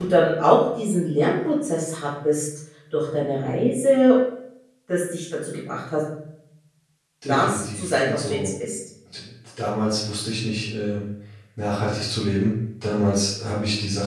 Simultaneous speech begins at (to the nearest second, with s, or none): 7 s